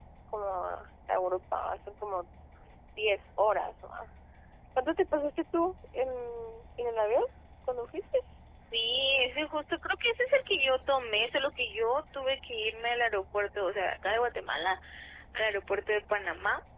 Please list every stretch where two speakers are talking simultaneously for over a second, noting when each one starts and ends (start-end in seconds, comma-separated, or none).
none